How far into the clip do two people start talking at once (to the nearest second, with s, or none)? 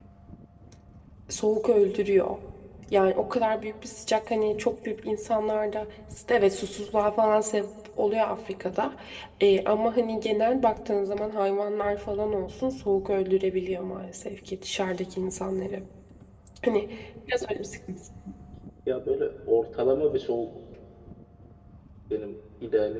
none